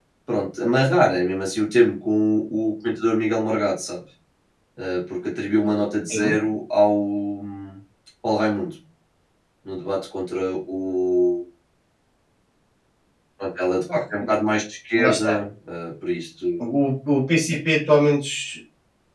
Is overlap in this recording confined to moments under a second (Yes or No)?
Yes